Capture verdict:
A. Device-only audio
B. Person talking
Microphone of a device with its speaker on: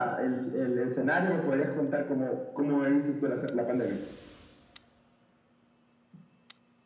A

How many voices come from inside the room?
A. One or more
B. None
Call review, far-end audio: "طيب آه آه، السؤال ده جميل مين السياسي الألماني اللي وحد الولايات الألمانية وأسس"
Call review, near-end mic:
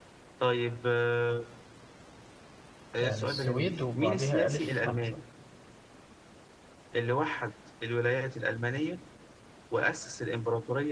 A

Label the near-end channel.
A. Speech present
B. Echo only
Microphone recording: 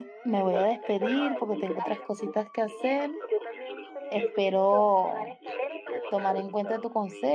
A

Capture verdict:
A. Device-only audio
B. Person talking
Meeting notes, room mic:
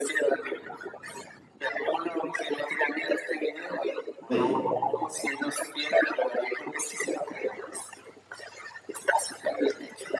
B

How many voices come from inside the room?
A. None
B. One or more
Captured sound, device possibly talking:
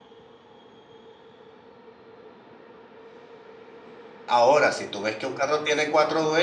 B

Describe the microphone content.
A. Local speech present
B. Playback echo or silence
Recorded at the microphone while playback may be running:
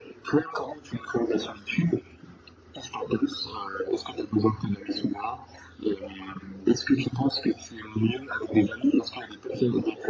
B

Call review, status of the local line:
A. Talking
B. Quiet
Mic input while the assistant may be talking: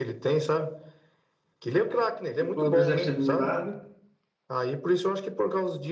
A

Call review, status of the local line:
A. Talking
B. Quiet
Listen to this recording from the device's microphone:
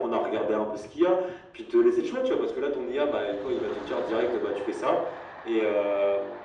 B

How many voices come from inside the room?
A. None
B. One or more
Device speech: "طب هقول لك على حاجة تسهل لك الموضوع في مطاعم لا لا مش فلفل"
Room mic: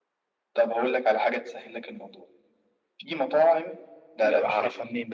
B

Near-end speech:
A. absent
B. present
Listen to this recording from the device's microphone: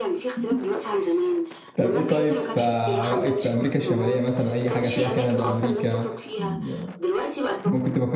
B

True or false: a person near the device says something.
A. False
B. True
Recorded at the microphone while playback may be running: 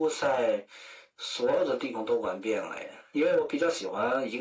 A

